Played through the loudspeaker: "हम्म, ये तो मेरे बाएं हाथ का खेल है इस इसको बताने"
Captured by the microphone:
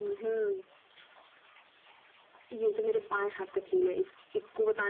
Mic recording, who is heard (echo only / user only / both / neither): echo only